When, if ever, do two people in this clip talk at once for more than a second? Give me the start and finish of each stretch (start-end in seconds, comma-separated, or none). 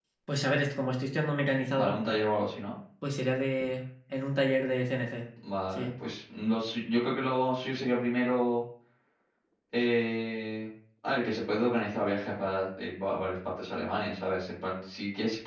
none